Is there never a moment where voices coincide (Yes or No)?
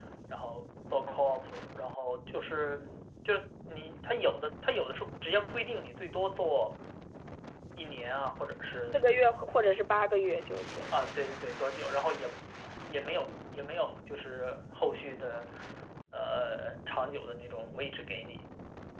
Yes